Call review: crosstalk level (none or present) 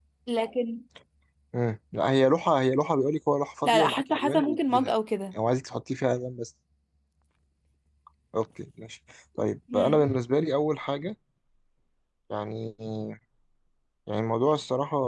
present